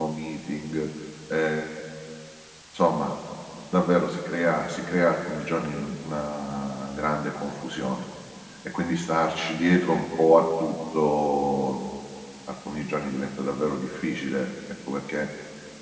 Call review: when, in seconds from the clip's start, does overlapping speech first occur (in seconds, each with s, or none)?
none